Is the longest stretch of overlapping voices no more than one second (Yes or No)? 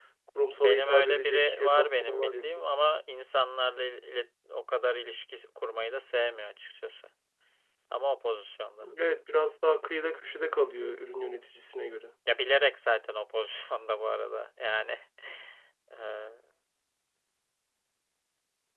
No